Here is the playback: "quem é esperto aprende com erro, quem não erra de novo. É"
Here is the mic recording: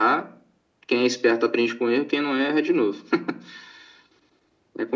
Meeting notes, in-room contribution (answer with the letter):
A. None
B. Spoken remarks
A